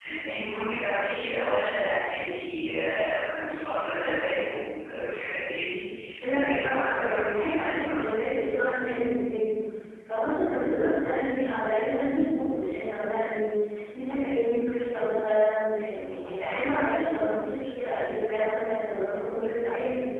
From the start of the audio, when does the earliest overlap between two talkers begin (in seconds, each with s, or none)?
6.3 s